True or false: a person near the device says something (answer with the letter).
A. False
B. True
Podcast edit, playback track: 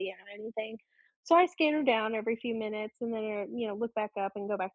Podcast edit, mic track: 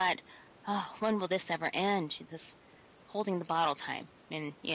B